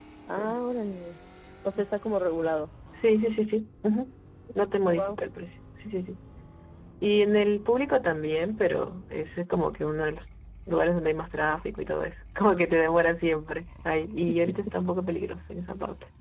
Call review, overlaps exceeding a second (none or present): none